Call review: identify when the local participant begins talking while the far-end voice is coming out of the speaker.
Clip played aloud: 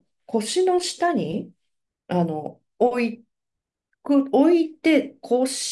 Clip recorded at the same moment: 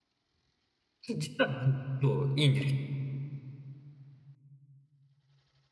1.1 s

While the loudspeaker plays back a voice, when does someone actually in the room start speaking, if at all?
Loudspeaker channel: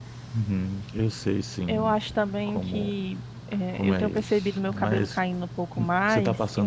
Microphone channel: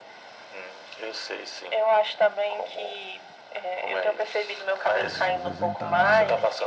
5.0 s

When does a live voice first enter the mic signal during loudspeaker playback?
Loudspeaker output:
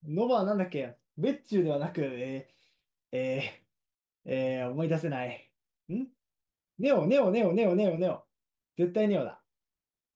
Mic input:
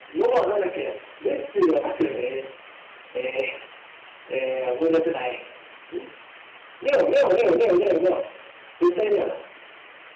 none

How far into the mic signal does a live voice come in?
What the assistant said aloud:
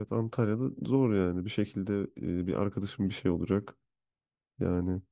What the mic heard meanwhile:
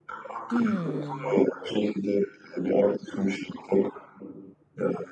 0.5 s

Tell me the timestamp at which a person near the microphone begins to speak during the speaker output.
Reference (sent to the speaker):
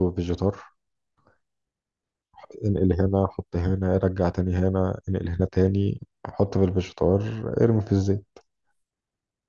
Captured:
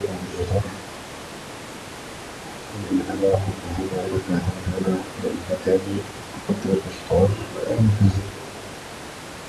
none

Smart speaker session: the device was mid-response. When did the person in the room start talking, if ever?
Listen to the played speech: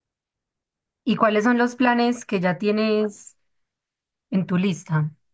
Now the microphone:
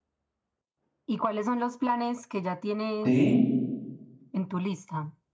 3.0 s

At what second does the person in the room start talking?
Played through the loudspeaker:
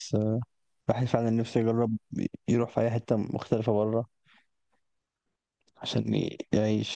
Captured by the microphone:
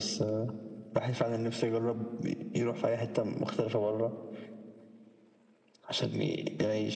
none

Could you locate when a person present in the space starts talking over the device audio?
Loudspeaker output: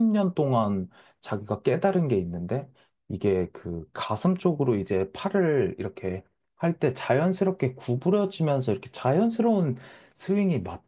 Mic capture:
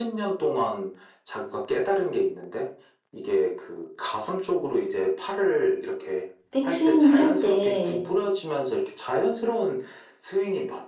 6.5 s

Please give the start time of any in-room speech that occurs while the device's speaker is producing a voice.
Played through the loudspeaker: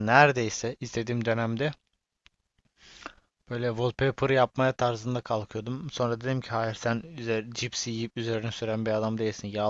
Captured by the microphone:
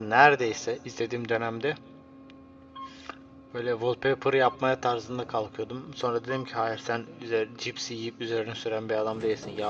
none

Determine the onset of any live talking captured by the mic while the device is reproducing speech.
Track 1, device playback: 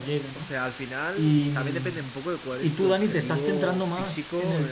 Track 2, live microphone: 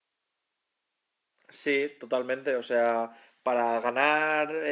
1.5 s

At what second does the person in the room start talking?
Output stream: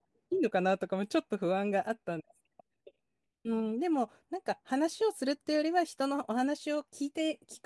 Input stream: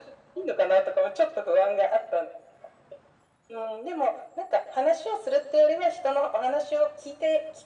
none

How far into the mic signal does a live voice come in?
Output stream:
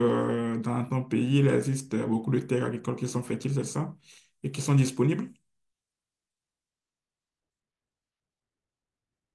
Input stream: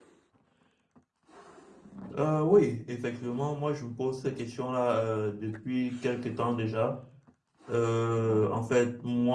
2.2 s

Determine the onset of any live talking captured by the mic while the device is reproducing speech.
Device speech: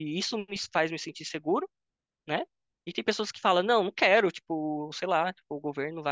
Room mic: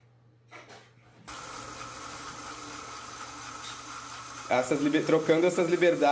4.5 s

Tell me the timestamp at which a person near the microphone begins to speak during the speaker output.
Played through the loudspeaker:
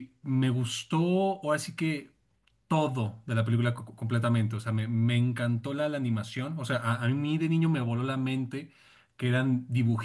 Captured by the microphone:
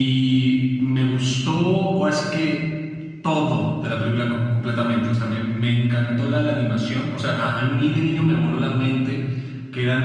none

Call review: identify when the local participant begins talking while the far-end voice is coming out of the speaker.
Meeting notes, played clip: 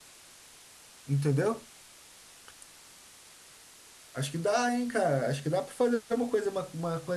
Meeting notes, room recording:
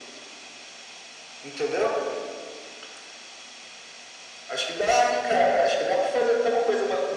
none

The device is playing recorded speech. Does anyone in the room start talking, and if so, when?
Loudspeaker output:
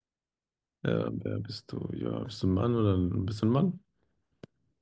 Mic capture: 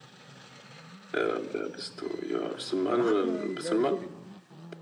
2.8 s

